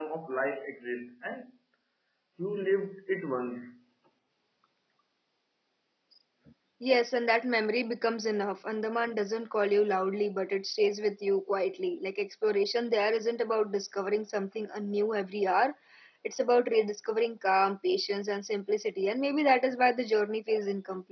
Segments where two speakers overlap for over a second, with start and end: none

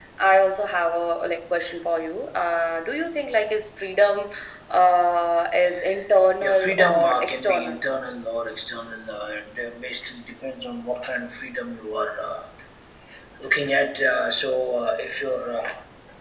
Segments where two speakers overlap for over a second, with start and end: 6.4-7.8

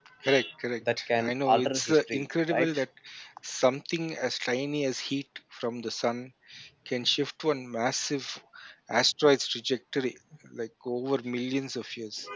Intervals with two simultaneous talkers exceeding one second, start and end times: 1.1-2.8

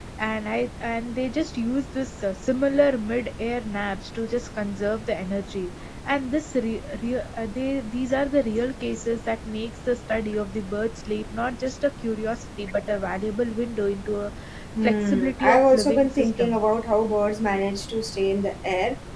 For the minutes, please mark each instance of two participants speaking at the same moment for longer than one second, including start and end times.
14.8-16.6

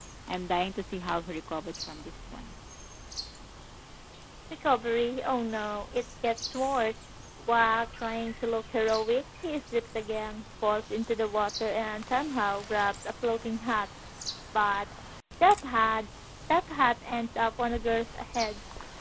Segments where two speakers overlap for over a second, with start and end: none

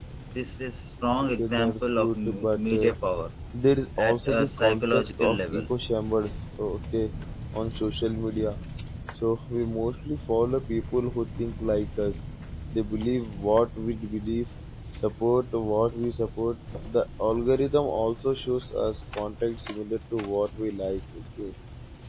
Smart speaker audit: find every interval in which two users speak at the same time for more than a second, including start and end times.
1.4-2.9, 4.0-5.7

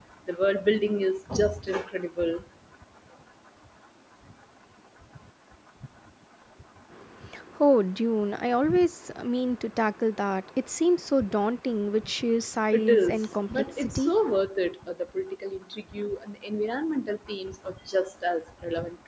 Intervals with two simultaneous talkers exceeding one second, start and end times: 12.7-14.1

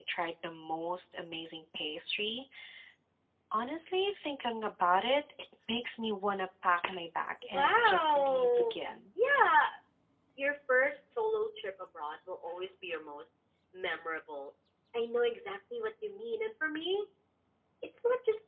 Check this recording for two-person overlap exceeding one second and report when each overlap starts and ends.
7.5-8.9

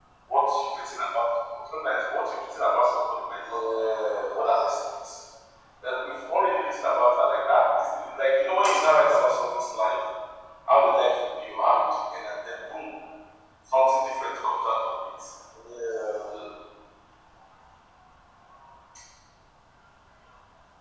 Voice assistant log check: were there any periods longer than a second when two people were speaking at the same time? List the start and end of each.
none

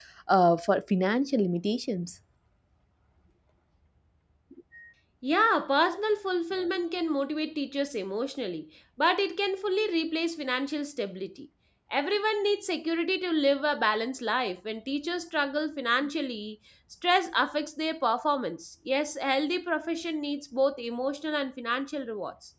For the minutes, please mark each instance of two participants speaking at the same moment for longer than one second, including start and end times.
none

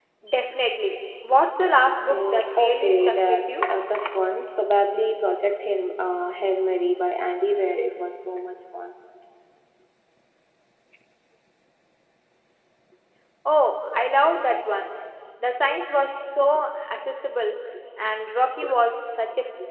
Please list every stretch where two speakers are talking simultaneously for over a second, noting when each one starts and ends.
2.1-3.6

